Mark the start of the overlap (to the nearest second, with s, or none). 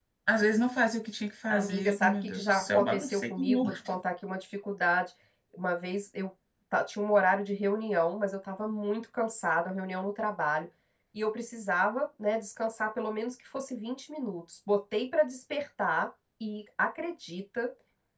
2 s